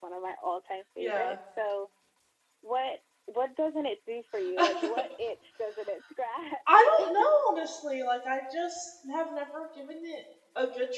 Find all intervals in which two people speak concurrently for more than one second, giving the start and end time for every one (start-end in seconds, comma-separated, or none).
none